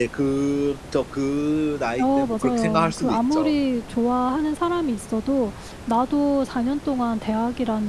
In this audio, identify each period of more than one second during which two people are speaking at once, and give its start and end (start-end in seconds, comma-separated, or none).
2.0-3.5